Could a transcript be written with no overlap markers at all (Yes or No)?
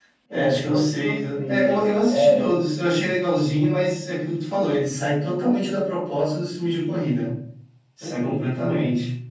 No